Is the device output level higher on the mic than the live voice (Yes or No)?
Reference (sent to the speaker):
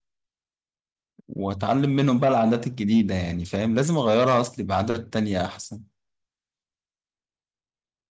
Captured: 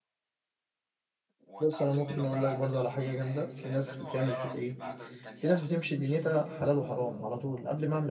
No